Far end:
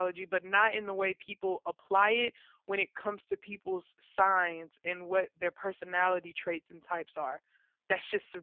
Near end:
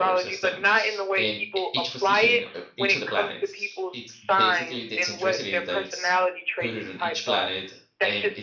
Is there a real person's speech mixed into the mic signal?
Yes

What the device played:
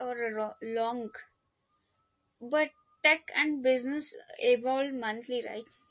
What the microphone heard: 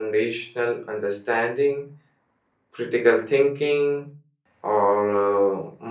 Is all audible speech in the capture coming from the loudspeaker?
No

